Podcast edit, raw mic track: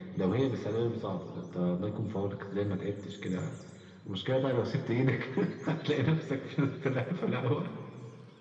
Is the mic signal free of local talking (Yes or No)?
Yes